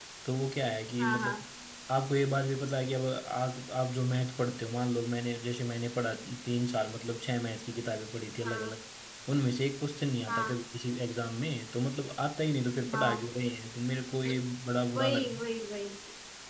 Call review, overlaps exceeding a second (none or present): none